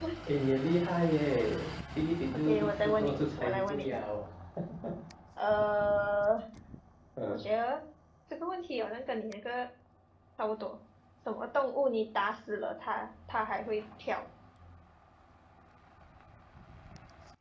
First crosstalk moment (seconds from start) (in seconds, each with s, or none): 2.3 s